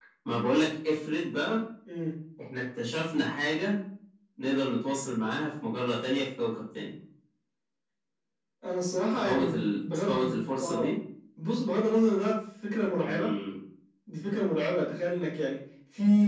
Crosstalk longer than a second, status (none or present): present